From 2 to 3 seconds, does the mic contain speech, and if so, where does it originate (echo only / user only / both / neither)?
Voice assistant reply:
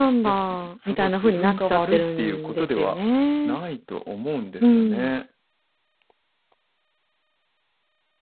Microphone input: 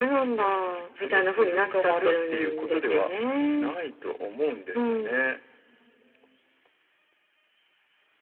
echo only